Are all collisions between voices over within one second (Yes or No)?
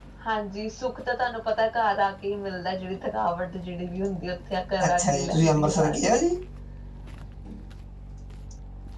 No